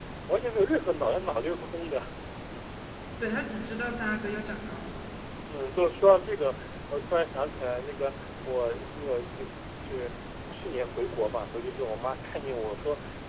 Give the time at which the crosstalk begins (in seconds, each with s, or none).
none